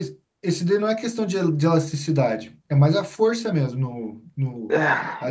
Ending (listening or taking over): taking over